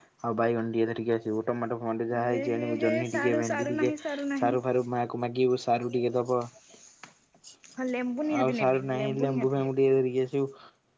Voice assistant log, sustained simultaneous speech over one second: present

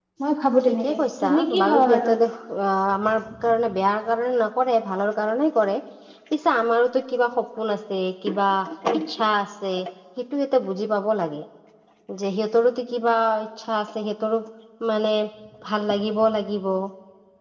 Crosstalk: present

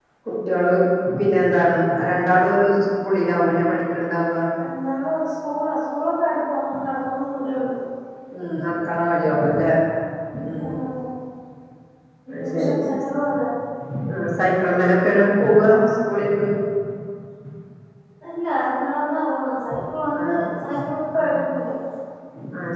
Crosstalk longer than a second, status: none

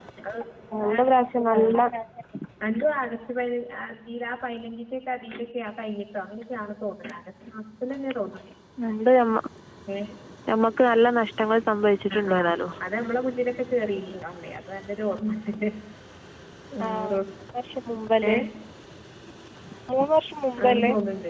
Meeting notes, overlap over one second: none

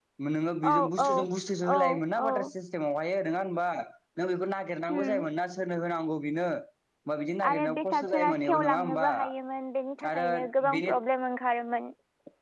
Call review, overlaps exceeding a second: present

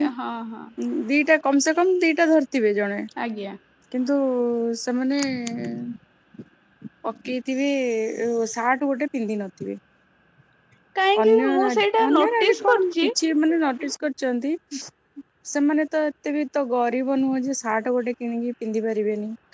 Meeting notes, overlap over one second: present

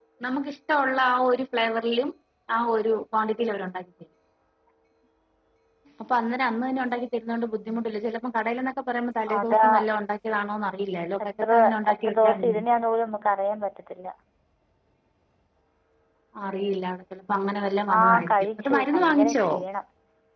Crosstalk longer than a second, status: present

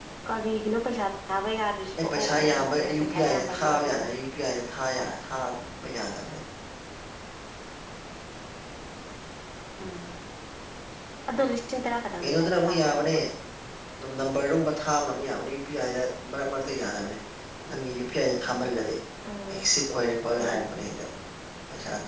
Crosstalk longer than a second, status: present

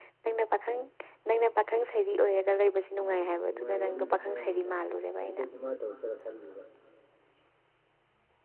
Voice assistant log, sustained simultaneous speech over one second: present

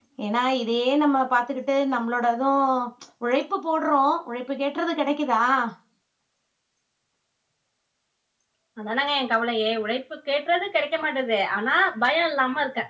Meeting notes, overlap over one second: none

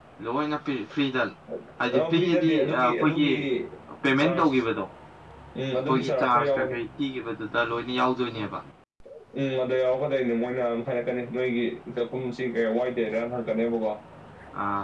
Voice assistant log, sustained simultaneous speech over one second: present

